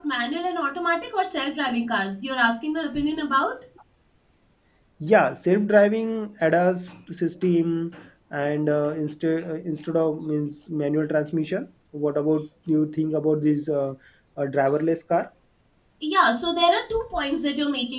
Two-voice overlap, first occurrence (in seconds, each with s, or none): none